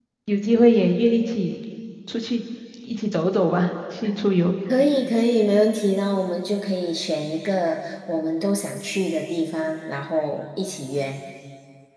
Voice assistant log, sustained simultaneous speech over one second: none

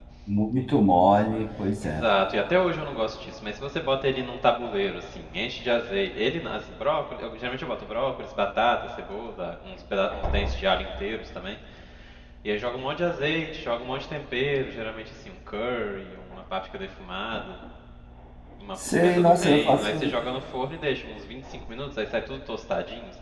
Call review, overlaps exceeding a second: present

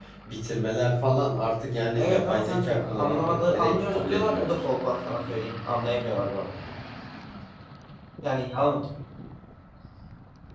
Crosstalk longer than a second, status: present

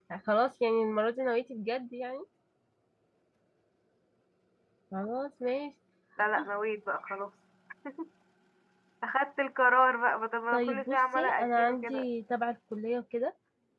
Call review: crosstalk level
present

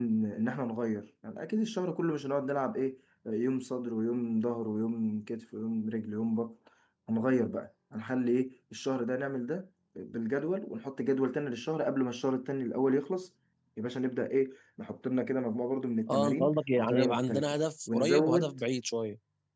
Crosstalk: present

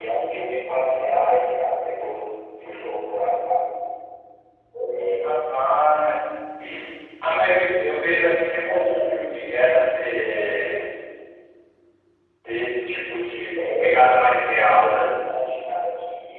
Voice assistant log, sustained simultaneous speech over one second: present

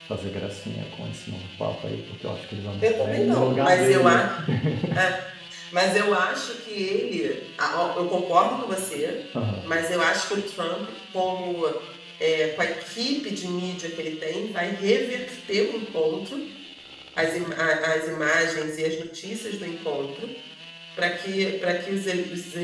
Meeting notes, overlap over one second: present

